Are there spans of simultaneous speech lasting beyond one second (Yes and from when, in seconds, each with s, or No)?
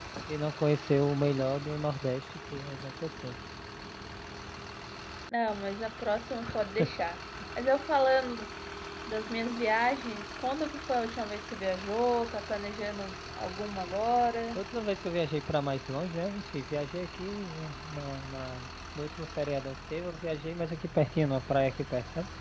No